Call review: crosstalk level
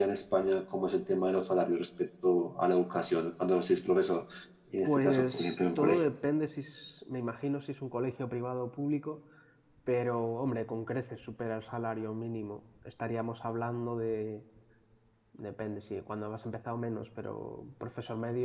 present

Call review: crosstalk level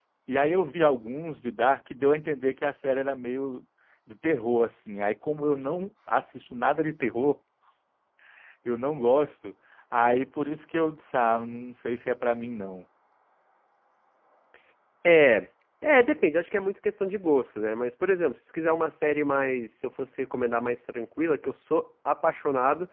none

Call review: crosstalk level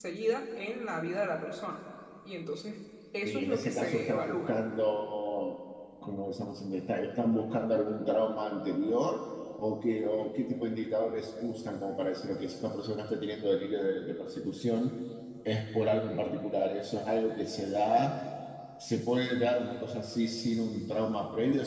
present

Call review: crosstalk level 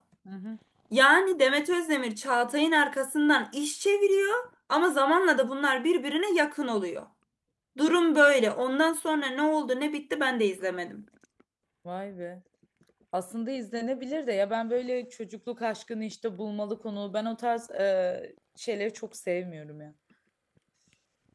none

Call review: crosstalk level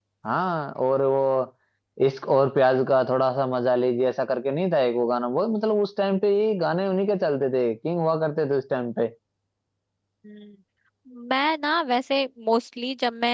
none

